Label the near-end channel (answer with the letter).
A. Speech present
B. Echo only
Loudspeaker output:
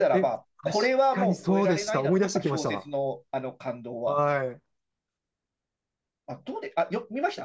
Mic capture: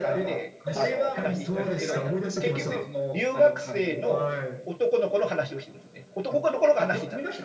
A